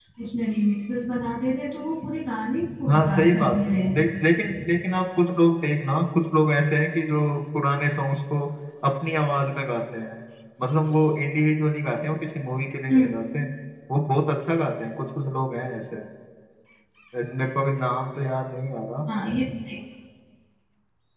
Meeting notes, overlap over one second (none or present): present